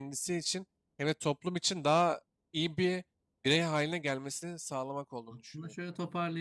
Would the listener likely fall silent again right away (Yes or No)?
No